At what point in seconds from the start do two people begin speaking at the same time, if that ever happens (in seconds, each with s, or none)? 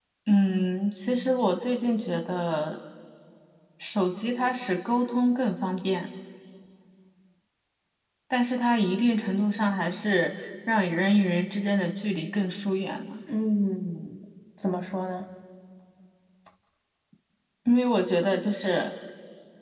none